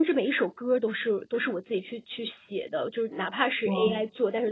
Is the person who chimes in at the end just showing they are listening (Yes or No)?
Yes